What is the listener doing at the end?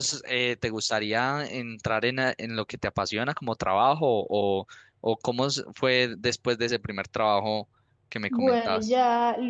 taking over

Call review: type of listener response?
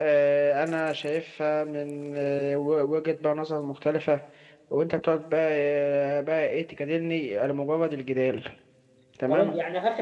taking over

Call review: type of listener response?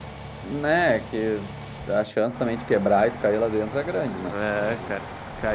taking over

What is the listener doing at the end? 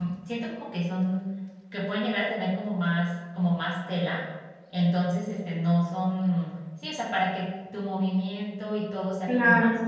taking over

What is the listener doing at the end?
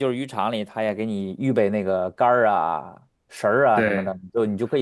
listening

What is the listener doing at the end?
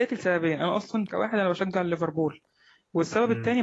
listening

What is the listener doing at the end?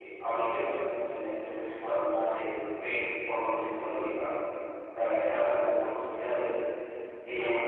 listening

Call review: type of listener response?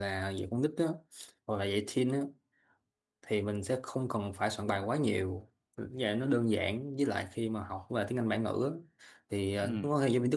listening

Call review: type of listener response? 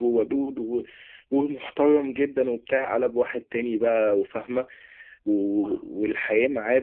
listening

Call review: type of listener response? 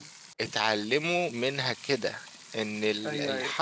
listening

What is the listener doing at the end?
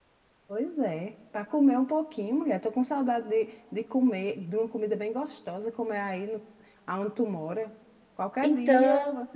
listening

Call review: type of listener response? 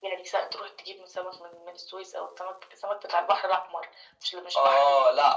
taking over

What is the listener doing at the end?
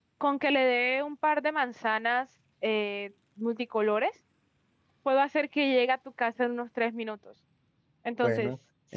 taking over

